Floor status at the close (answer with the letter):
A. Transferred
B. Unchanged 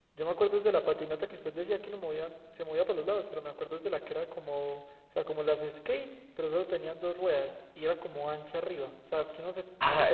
A